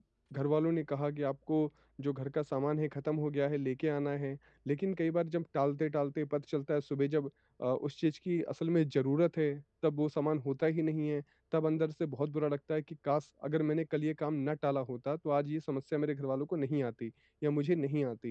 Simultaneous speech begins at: none

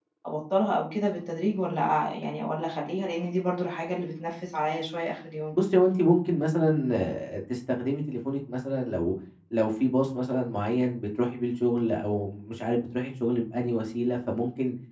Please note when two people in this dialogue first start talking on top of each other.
none

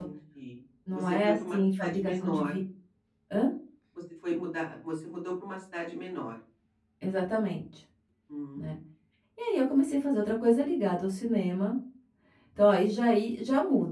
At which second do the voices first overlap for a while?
0.9 s

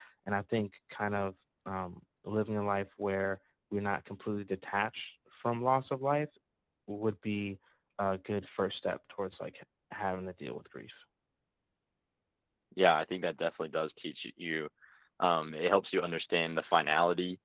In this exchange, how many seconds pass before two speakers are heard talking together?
none

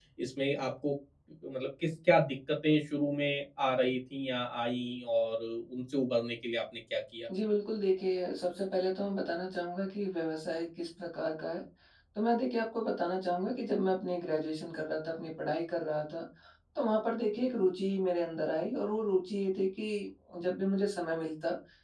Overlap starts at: none

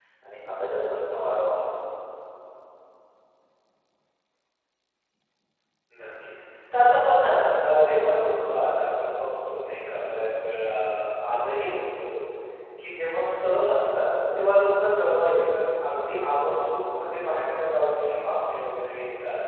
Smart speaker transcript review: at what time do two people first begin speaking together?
none

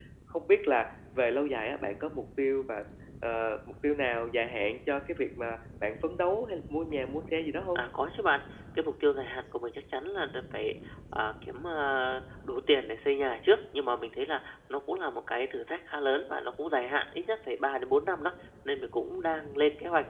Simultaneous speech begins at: none

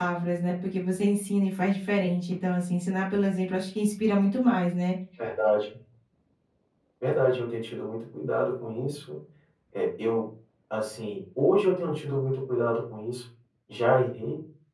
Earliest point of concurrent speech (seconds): none

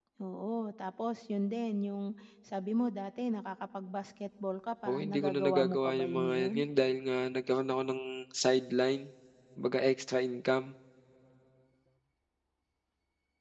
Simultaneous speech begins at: 4.8 s

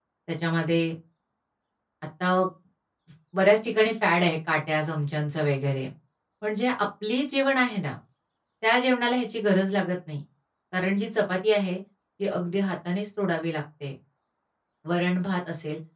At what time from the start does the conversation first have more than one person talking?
none

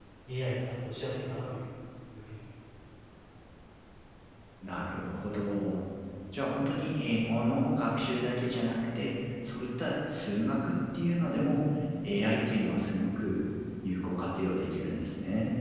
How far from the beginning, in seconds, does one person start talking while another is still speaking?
none

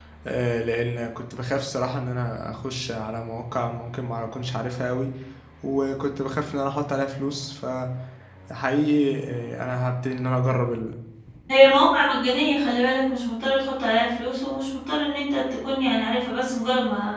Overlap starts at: none

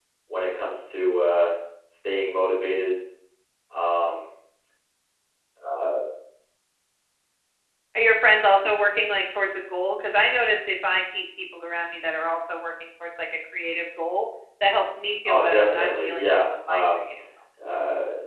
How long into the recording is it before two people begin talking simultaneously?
15.2 s

